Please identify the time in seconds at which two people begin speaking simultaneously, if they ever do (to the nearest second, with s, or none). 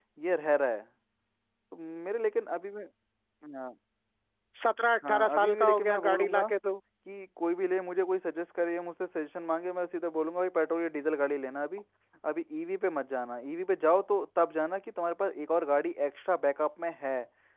5 s